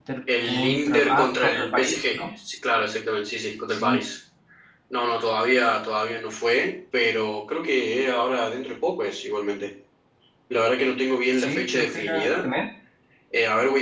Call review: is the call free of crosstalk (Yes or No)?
No